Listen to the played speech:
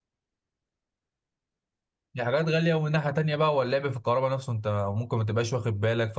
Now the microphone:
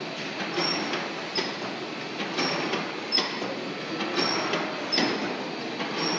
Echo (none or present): none